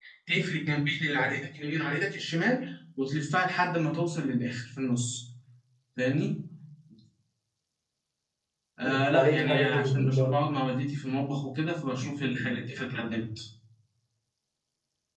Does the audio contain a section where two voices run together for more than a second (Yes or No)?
Yes